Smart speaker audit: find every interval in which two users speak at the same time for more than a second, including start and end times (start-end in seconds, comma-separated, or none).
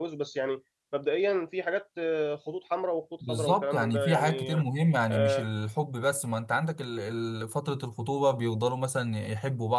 3.3-4.6